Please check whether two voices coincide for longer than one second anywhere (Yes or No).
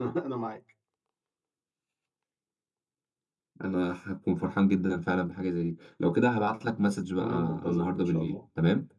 Yes